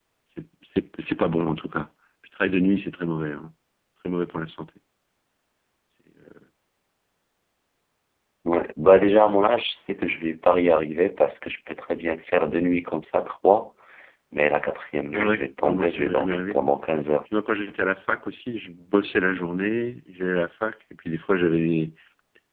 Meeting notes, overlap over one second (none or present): present